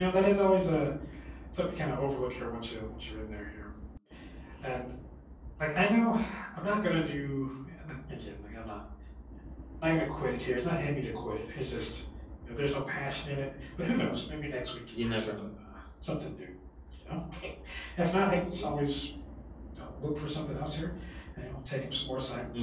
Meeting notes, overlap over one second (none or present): none